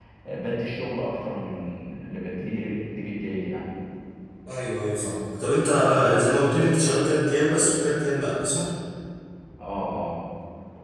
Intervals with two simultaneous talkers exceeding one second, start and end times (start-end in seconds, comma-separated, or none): none